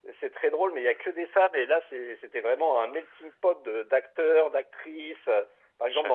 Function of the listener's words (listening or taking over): listening